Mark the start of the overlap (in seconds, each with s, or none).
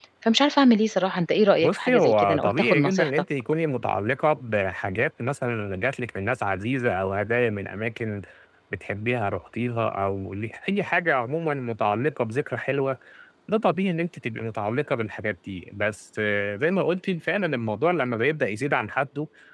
1.6 s